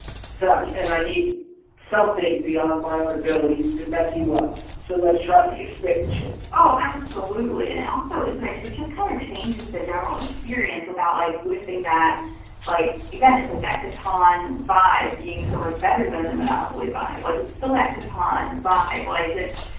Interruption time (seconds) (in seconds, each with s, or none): none